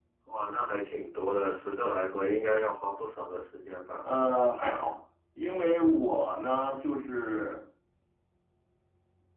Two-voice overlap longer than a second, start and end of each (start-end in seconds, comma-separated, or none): none